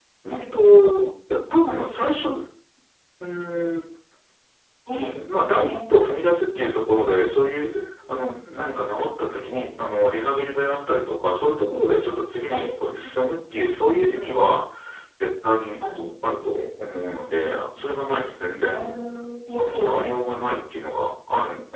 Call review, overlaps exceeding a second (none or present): none